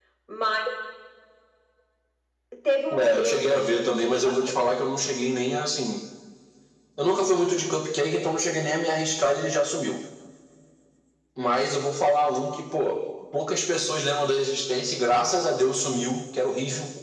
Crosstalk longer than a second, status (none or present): present